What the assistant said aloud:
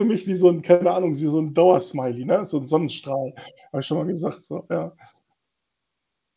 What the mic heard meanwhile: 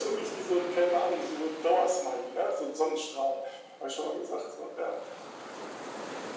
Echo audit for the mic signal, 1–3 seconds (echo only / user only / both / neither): echo only